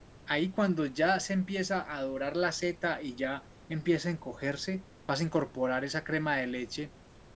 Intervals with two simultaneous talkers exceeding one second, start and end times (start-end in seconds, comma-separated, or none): none